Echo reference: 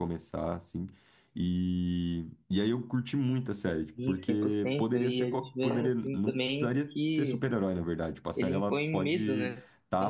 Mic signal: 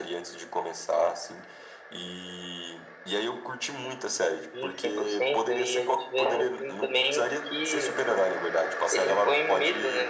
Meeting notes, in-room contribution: none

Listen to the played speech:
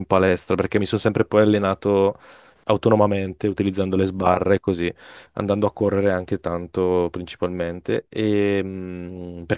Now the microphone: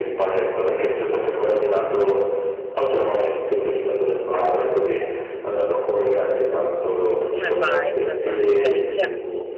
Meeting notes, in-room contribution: present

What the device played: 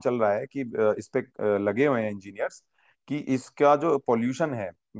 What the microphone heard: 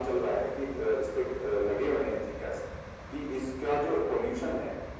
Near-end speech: none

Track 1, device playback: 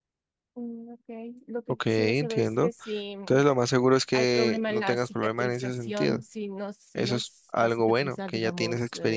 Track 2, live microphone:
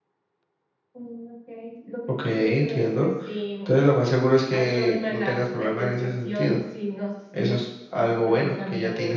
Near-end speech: none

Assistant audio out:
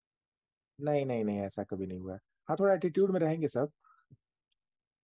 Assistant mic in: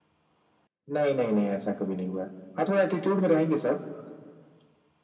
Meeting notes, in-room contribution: none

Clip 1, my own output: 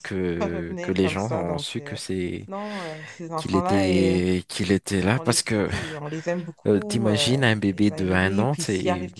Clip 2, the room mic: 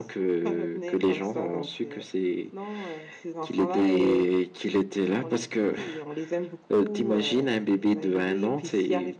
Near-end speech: none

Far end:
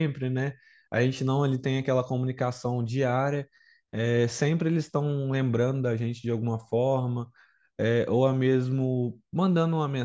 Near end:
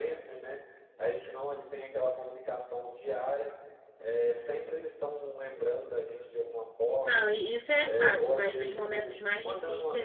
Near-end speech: present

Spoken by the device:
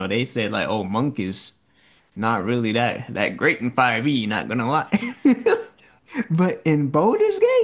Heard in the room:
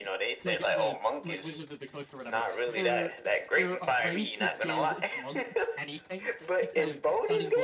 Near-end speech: present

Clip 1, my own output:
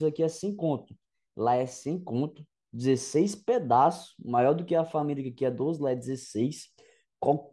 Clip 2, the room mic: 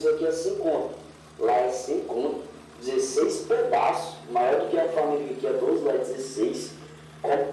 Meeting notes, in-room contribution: none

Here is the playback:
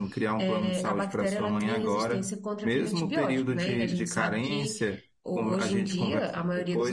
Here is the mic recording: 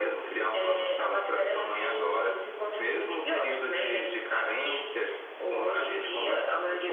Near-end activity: none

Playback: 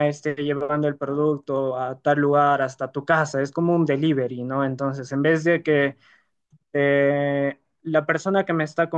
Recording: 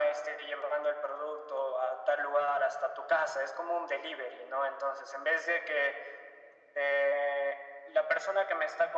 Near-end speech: none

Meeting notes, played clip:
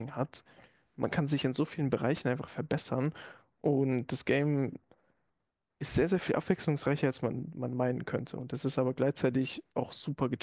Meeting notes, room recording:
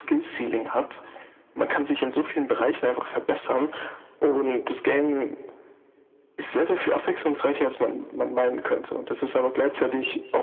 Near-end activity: none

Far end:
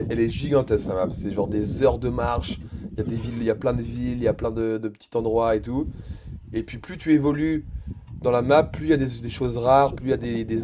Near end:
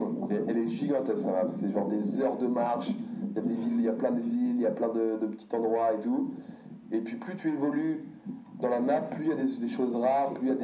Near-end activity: none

